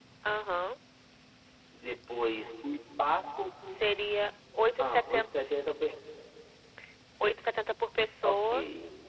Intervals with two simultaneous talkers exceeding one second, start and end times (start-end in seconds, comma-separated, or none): none